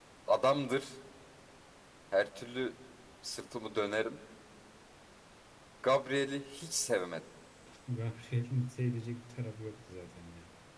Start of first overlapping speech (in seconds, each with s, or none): none